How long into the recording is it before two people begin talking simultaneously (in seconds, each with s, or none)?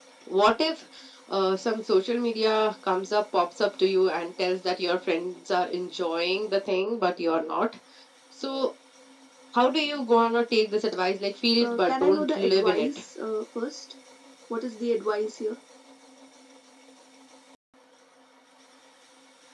11.6 s